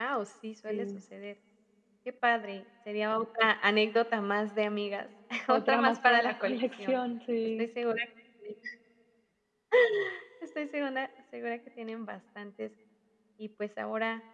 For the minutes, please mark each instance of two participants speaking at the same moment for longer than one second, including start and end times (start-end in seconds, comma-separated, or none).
5.7-7.0